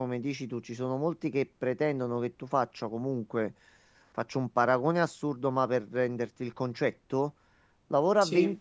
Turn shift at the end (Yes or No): No